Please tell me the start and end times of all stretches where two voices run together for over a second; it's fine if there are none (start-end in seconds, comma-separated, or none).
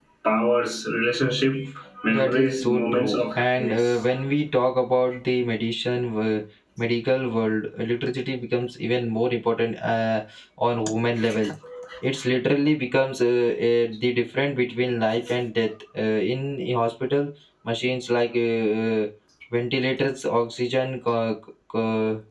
2.1-4.0